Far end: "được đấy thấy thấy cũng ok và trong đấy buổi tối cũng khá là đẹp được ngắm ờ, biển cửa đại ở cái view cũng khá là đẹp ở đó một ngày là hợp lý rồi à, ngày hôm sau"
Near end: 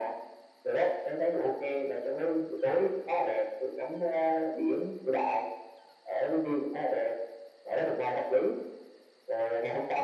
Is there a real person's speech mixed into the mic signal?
No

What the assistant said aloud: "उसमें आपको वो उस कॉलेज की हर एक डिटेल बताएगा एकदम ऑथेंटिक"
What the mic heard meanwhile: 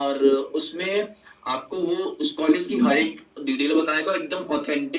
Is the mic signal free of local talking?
No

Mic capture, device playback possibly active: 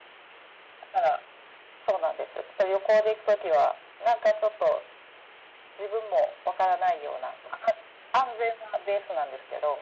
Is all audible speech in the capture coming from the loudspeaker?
Yes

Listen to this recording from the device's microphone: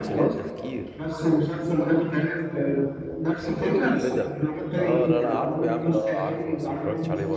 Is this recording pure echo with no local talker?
No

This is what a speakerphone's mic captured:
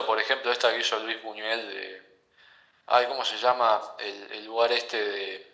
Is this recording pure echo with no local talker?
Yes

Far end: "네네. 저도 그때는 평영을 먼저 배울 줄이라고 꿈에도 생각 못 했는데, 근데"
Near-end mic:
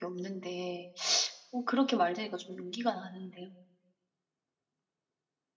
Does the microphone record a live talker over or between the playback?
Yes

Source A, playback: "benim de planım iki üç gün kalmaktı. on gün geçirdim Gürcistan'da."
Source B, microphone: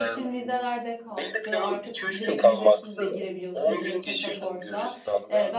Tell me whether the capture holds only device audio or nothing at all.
No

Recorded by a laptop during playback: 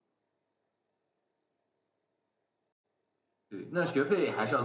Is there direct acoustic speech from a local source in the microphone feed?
Yes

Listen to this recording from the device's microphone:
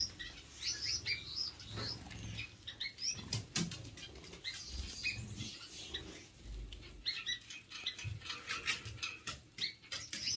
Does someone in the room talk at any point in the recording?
No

